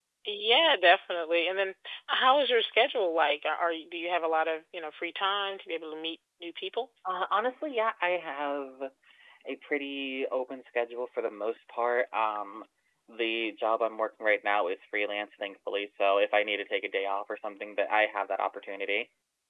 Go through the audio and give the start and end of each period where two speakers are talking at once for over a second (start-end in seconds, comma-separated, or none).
none